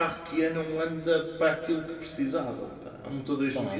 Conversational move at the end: taking over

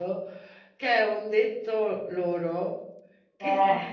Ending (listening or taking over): listening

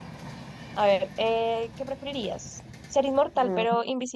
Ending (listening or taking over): listening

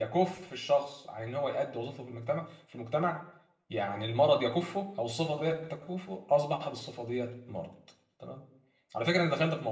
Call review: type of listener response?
listening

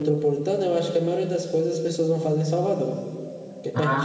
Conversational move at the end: taking over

